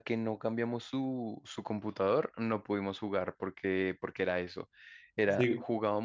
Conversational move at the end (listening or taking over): listening